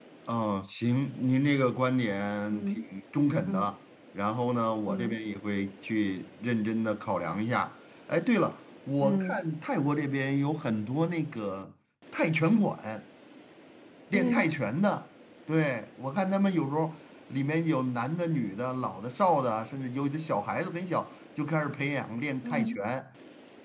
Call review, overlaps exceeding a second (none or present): none